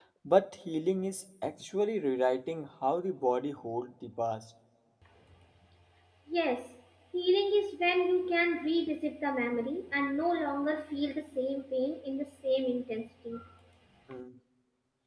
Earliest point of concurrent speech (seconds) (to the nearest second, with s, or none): none